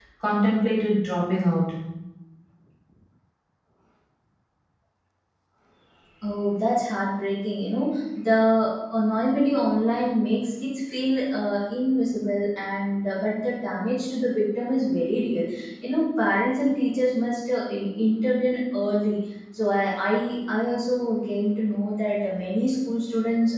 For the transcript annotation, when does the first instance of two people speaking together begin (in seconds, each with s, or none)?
none